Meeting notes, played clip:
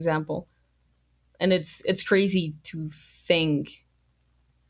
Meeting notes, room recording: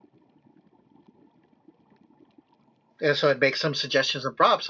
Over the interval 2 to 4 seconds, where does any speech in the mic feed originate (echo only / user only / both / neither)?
user only